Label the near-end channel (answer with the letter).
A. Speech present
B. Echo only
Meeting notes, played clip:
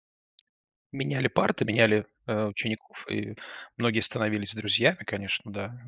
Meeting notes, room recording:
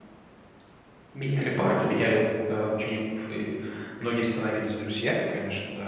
B